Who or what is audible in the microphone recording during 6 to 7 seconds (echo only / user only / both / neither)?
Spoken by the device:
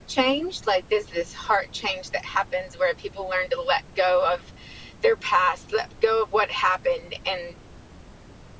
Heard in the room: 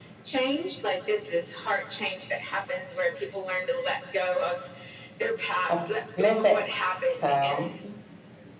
both